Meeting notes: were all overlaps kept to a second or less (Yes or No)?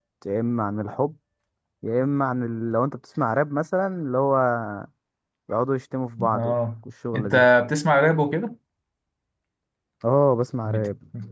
Yes